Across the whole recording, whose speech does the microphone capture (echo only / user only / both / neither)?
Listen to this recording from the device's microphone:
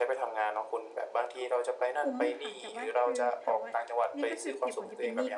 both